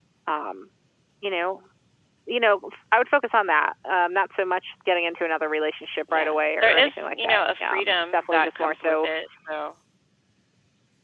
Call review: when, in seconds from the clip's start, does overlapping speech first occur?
6.1 s

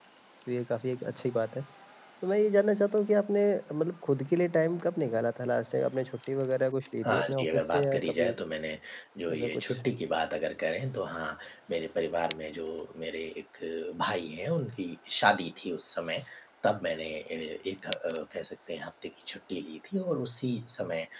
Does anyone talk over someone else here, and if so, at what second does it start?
7.0 s

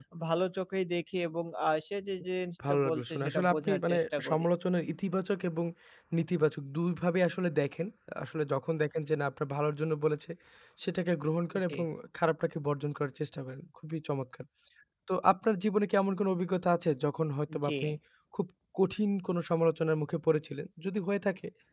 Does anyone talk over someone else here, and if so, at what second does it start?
2.7 s

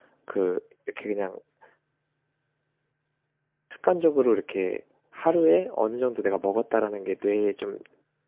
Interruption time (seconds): none

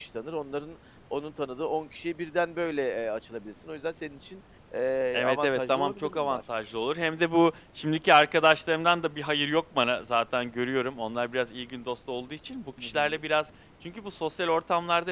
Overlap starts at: 5.1 s

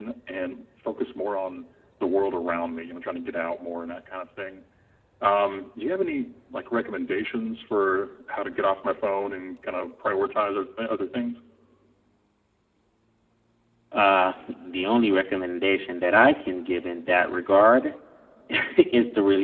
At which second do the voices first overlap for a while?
none

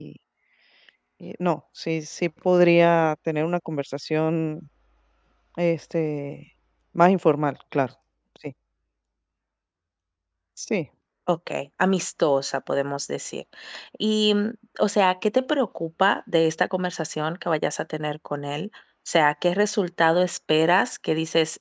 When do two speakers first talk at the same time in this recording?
none

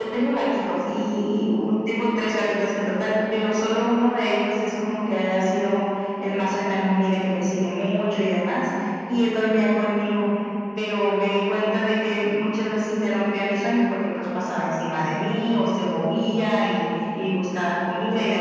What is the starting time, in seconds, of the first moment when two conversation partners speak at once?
none

